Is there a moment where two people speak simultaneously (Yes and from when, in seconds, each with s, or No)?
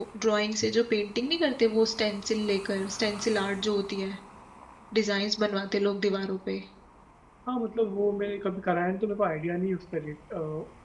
No